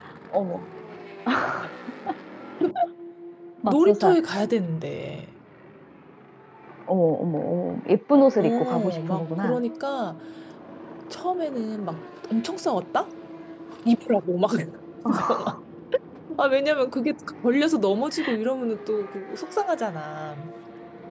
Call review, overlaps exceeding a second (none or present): present